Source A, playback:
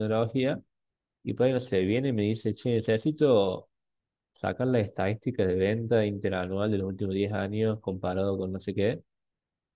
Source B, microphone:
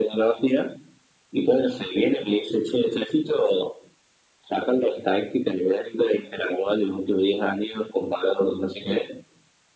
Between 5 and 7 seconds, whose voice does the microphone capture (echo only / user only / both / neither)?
echo only